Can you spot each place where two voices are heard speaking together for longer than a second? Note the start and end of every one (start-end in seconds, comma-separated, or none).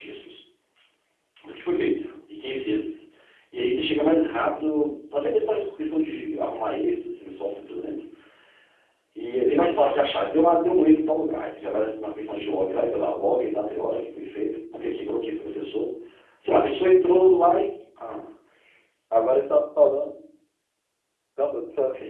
none